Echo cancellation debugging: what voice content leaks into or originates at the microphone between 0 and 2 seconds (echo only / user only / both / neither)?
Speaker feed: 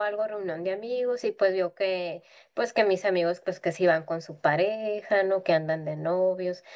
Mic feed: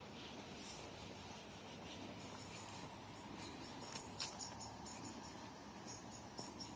neither